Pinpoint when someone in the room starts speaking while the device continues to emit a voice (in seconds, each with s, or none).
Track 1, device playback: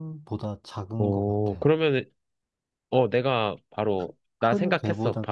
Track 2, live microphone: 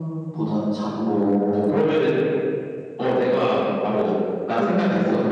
none